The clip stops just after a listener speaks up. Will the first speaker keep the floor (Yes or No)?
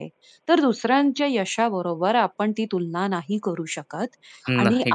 Yes